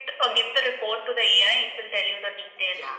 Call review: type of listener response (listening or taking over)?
taking over